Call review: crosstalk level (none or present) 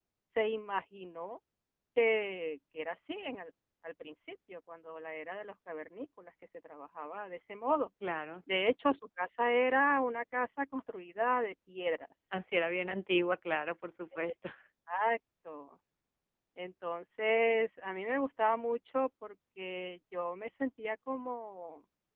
none